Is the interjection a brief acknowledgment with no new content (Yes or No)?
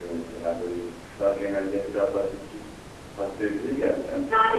No